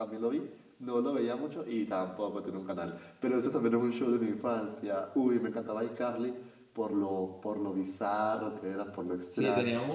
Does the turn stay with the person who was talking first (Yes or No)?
No